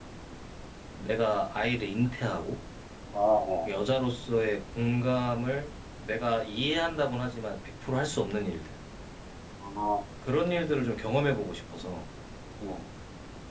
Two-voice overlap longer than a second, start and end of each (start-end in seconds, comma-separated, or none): none